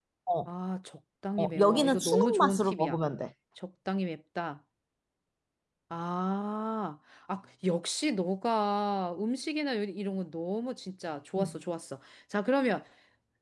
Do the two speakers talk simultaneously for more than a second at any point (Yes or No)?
Yes